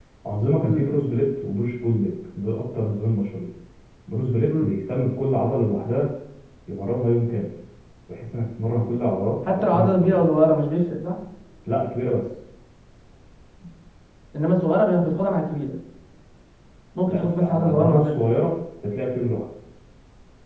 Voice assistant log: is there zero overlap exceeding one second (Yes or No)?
No